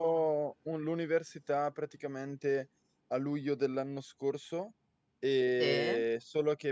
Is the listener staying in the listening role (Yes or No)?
Yes